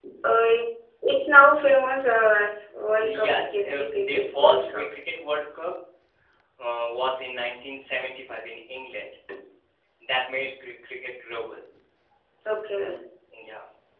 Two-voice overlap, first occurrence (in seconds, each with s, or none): 3.0 s